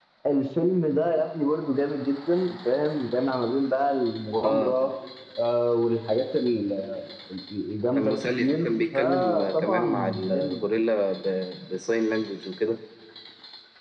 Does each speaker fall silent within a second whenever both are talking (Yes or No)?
No